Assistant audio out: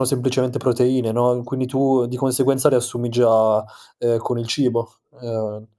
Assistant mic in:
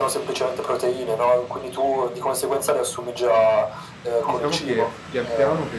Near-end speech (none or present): present